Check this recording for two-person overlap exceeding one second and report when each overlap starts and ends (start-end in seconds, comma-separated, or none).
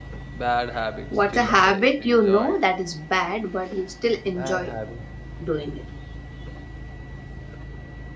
1.3-2.6